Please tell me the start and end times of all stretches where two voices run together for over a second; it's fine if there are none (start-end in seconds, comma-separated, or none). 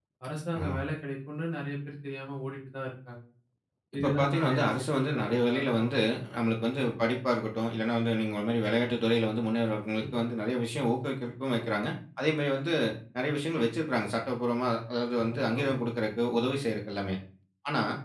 4.0-5.9